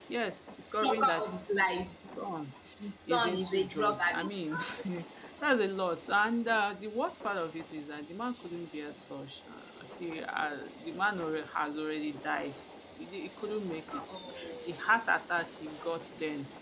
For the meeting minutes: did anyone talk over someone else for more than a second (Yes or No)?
Yes